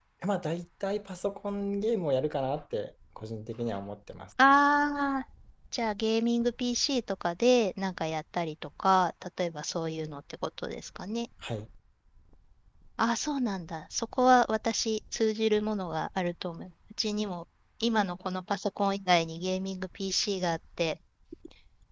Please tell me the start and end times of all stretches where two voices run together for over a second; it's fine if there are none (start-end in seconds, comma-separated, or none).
none